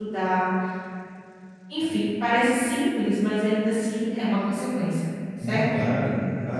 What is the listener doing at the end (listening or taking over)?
taking over